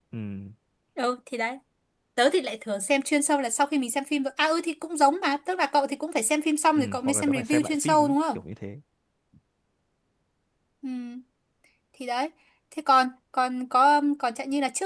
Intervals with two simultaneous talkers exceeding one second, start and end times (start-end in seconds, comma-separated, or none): 6.8-8.4